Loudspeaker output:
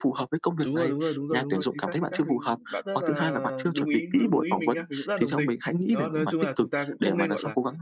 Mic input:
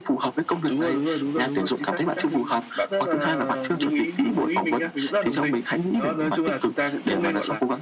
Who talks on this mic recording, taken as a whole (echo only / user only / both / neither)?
echo only